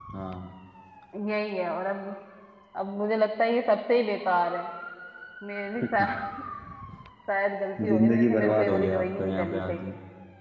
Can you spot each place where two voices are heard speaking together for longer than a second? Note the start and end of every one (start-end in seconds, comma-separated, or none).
7.9-9.8